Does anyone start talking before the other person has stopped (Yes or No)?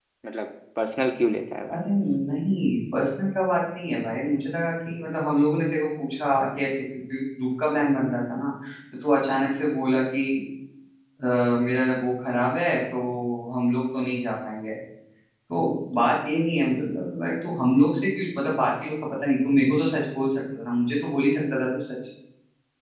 No